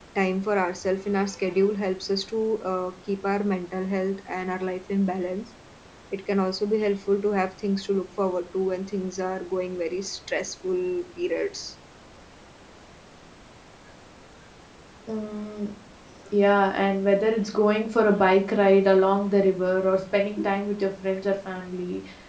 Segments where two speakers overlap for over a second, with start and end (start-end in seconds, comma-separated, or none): none